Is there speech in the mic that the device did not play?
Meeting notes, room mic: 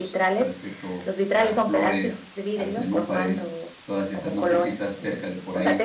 Yes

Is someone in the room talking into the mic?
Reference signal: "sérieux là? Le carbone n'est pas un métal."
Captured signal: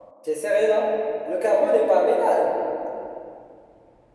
No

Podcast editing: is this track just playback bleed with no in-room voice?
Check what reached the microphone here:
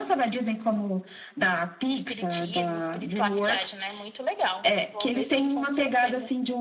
No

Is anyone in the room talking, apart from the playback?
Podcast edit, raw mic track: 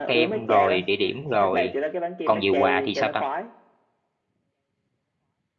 Yes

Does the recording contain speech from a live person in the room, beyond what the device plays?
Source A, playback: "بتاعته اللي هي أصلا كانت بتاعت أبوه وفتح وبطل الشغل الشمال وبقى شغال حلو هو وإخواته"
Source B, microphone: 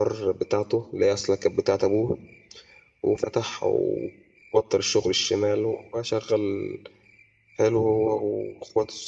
No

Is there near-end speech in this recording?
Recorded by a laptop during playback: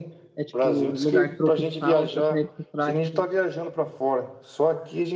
Yes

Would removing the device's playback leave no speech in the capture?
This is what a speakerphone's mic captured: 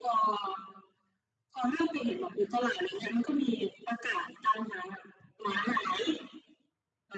Yes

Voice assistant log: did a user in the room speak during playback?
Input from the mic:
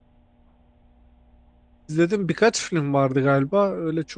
Yes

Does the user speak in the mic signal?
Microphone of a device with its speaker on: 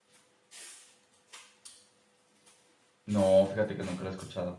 Yes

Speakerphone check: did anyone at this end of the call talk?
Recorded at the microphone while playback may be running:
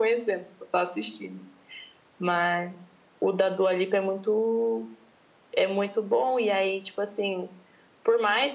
No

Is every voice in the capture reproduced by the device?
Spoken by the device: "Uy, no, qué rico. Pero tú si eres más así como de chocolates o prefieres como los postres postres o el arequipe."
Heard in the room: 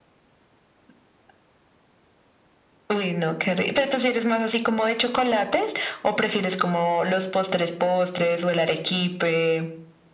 Yes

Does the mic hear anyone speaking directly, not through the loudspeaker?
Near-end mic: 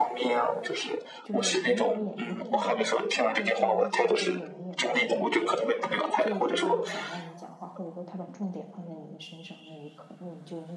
Yes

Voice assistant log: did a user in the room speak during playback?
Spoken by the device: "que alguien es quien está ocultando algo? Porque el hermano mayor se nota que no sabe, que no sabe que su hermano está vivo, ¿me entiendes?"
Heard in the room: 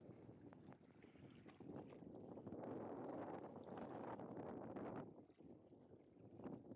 No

